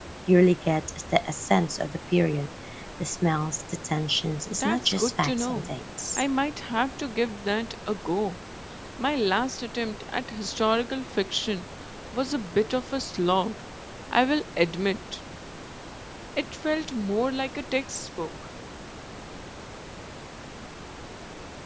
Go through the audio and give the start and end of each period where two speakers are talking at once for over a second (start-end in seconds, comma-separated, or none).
4.5-5.7